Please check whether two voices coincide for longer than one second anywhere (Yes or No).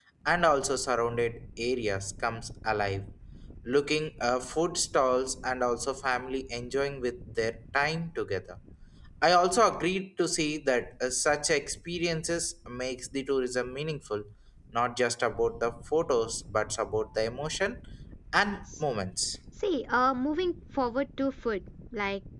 No